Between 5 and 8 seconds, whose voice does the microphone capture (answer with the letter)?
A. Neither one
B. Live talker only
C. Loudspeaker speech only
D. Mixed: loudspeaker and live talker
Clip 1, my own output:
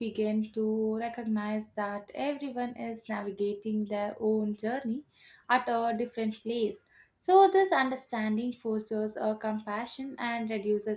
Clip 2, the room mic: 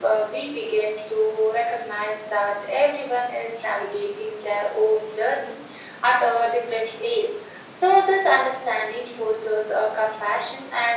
C